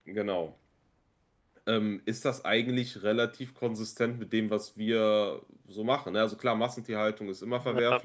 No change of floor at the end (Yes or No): Yes